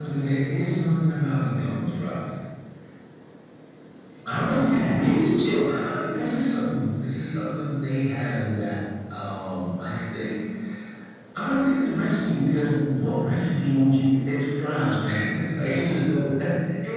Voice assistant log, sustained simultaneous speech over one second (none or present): present